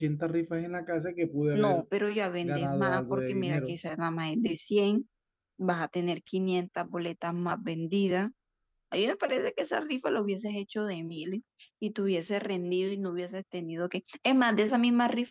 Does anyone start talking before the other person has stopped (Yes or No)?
Yes